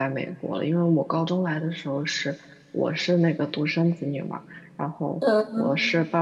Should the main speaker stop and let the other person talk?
No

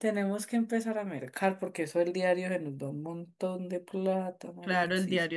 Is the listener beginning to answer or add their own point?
Yes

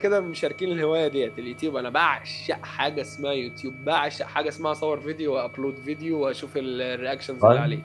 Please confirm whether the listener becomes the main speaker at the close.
Yes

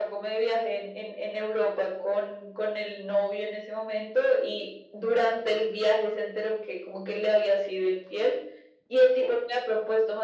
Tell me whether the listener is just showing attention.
Yes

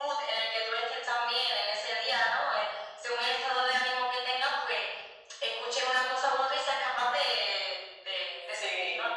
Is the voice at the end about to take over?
Yes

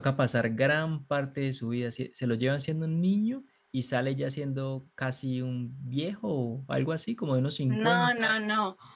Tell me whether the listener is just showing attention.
No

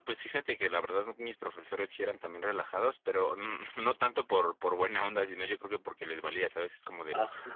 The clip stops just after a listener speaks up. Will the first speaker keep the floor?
Yes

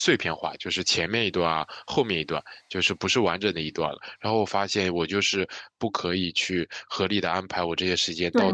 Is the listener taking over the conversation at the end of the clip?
Yes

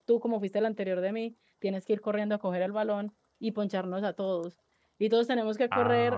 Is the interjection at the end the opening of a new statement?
No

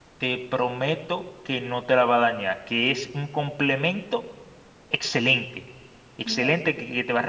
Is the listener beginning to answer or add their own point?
No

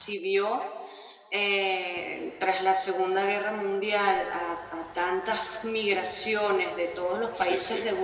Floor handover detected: No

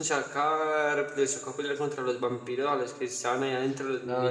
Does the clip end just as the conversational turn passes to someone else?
Yes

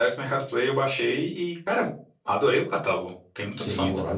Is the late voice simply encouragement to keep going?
No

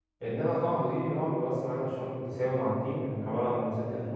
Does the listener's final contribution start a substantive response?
No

